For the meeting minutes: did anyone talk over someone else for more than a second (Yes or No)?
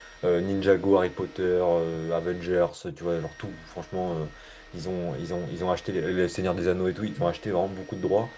No